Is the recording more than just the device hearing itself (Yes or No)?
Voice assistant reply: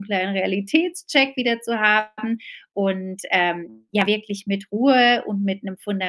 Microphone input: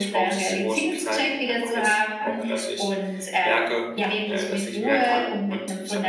Yes